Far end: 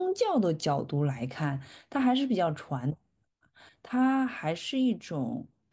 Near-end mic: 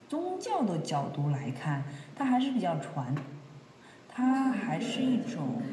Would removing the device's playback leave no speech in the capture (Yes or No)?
No